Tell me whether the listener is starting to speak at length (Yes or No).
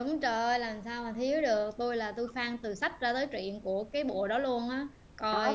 Yes